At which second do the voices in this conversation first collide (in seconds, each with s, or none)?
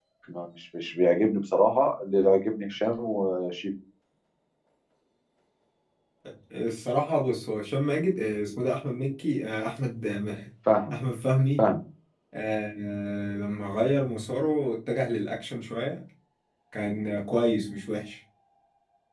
none